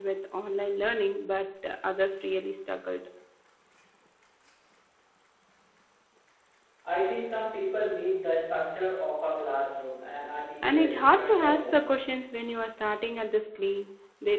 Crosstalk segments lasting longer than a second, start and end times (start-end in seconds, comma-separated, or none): 10.6-12.0